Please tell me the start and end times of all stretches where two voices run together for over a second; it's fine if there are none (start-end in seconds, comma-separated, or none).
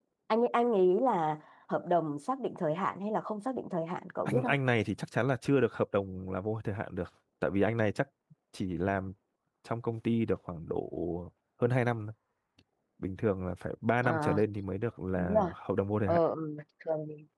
none